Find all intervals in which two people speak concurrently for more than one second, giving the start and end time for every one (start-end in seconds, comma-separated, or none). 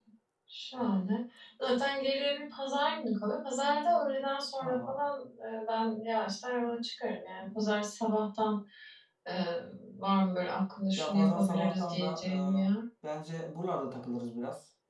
11.0-12.7